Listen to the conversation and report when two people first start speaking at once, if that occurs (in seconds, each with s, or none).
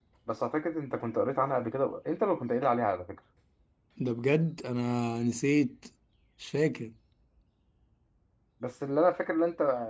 none